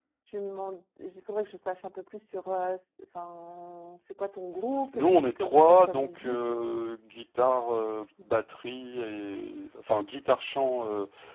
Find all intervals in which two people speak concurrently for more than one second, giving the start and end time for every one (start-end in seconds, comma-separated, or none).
4.9-6.4